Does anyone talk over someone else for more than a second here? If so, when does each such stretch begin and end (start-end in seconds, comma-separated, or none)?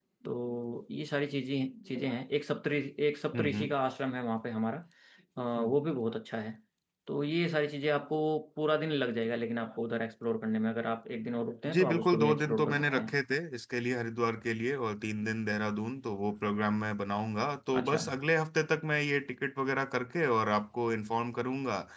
11.7-13.1